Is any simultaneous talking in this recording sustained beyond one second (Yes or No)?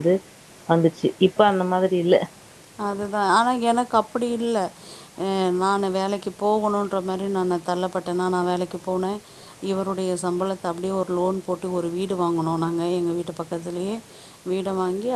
No